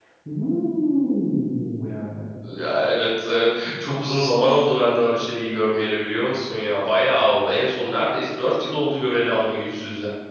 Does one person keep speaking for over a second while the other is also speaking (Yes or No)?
No